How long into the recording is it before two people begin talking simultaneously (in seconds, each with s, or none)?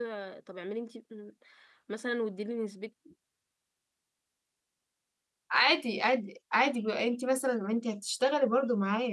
none